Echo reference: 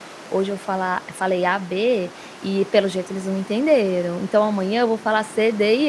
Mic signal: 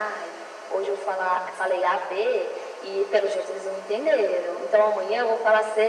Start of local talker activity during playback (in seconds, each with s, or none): none